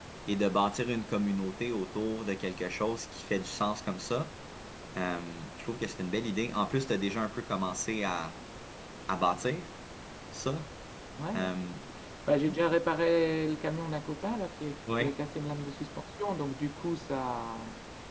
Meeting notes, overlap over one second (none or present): none